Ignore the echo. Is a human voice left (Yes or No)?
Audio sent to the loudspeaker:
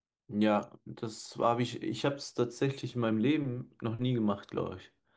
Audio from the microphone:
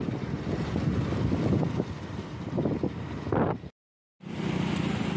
No